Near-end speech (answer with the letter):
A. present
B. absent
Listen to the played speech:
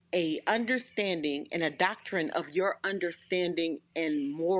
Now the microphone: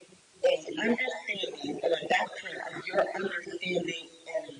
B